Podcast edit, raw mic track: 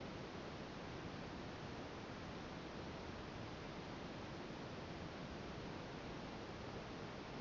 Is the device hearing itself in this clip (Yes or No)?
No